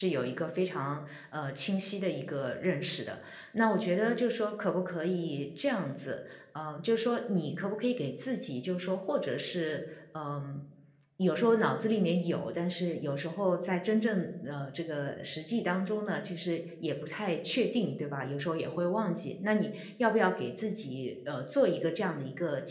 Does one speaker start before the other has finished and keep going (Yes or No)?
No